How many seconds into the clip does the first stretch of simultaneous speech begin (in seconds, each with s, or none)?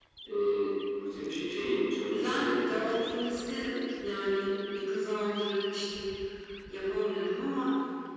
2.1 s